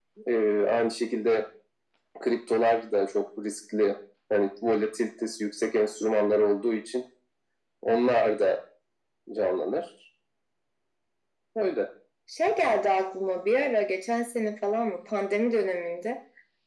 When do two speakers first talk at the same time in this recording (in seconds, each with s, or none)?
none